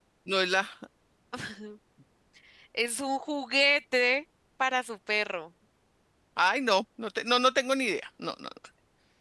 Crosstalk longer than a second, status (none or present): none